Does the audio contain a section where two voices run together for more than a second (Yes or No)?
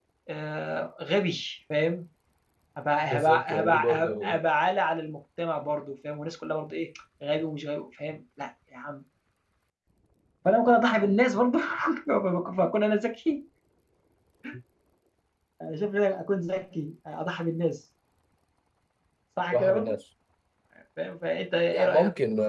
Yes